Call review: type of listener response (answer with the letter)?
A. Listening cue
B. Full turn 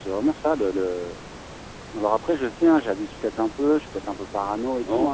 B